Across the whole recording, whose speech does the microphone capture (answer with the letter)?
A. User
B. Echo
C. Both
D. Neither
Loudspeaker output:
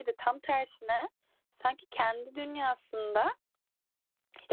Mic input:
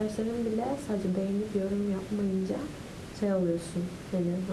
A